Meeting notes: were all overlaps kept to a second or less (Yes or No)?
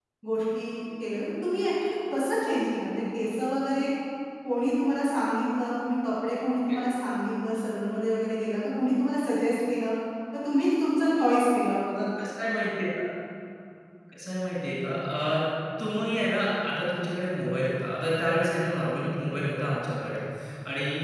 Yes